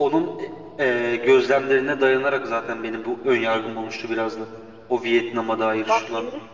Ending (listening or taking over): taking over